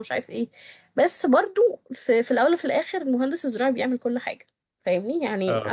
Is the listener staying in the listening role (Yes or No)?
Yes